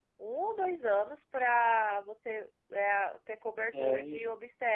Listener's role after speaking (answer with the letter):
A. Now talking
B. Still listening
B